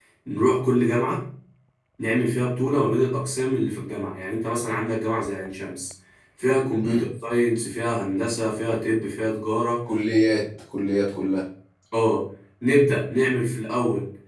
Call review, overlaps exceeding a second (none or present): none